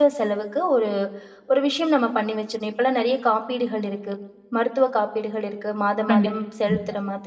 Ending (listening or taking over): listening